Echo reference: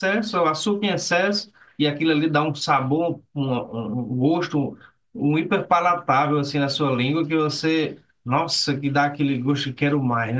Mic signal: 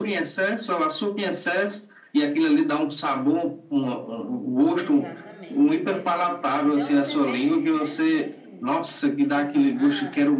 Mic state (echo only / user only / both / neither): both